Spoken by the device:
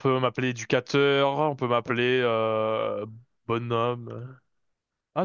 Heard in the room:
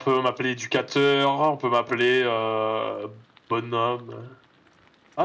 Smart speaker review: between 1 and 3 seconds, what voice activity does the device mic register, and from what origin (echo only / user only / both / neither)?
echo only